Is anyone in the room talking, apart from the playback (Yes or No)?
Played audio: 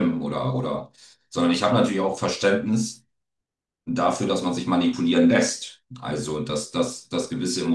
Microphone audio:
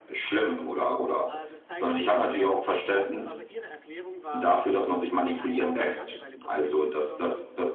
Yes